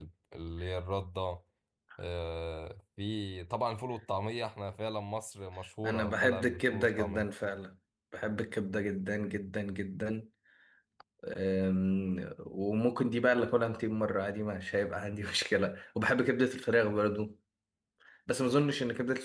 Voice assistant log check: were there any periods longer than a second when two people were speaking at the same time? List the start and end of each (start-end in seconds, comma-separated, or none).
5.8-7.3